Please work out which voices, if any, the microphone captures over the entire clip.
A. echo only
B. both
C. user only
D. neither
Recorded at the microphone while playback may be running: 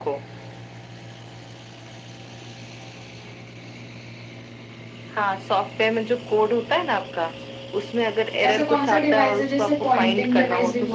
B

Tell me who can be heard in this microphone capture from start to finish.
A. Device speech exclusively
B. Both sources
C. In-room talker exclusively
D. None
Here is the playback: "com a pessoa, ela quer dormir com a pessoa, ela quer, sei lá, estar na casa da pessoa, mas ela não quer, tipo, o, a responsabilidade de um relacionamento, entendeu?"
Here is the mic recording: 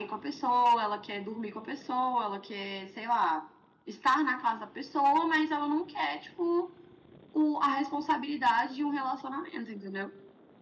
A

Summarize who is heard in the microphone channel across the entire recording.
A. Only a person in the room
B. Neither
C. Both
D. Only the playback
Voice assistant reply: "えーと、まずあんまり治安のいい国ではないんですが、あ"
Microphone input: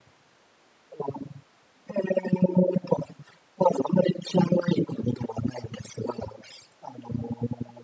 D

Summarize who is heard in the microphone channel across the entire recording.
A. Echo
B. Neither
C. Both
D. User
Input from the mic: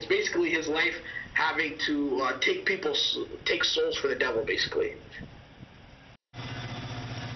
A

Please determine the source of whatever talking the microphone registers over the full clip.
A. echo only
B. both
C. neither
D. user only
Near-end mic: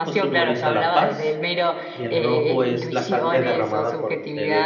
B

